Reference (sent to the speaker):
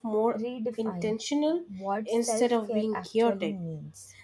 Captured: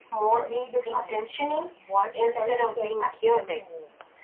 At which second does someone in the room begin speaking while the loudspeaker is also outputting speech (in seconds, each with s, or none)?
none